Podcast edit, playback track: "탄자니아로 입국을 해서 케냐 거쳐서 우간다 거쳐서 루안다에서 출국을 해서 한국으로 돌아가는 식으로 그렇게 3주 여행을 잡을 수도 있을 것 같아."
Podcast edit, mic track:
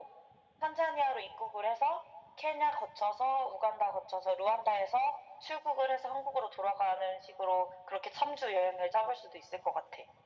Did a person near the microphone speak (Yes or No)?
No